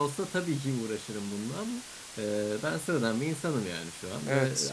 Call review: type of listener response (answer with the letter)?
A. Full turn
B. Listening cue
B